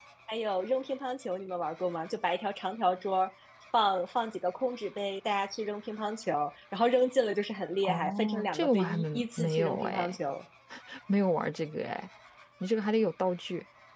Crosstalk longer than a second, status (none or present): present